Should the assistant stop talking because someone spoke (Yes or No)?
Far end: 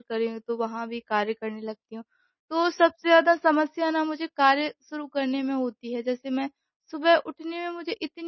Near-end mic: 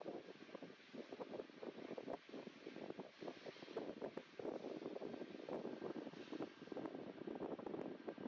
No